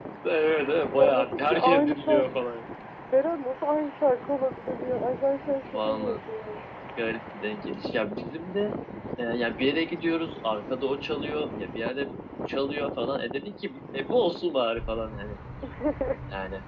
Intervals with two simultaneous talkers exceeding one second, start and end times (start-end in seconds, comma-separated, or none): 1.0-2.3